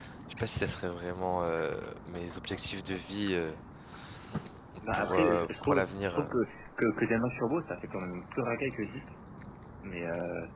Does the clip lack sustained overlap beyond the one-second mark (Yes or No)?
No